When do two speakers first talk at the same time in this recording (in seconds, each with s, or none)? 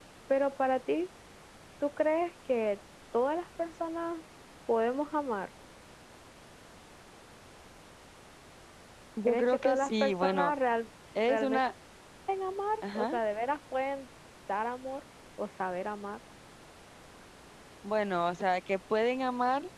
9.3 s